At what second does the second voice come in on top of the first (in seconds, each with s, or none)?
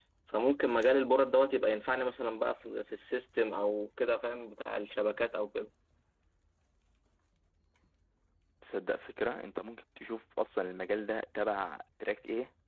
none